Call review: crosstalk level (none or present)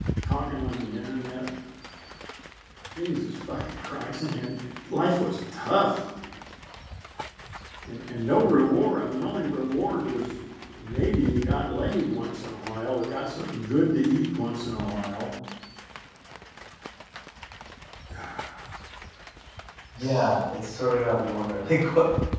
none